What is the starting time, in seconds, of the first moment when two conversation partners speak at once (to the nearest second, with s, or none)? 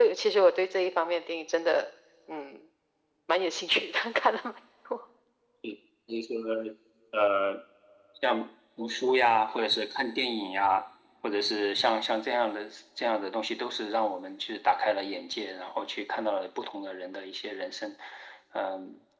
none